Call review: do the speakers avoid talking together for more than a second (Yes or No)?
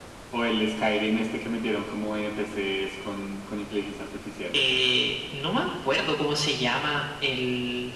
Yes